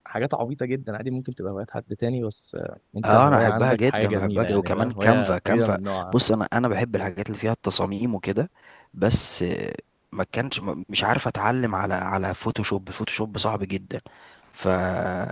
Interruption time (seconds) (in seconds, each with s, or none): 3.0 s